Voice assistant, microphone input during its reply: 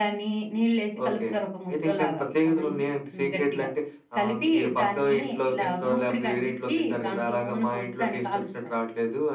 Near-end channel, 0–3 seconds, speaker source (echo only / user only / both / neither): echo only